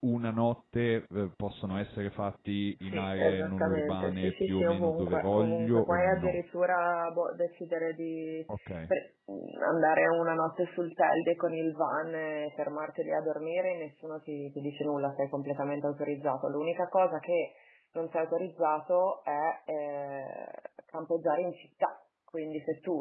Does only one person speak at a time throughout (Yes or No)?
No